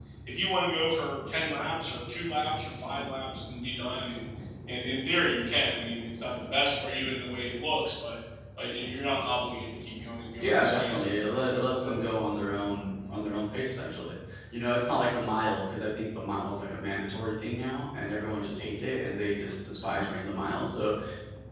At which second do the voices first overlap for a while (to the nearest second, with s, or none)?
10 s